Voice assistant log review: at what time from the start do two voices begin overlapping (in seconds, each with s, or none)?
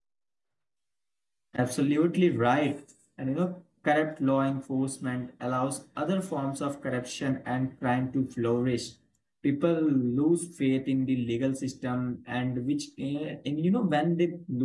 none